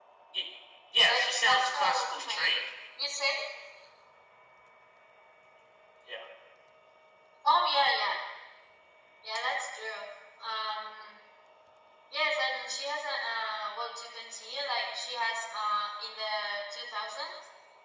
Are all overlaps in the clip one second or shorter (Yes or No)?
No